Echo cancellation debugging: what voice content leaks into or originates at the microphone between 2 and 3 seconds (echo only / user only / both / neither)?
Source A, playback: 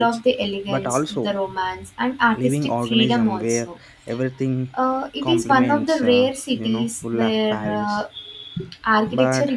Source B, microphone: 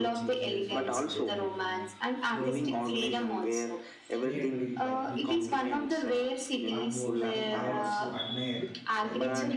both